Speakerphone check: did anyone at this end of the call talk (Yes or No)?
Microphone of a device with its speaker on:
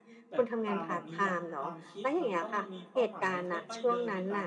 Yes